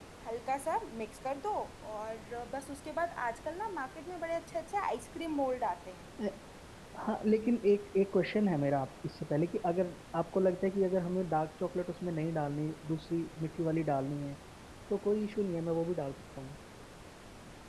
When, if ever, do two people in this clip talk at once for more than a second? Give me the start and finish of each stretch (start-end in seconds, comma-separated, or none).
none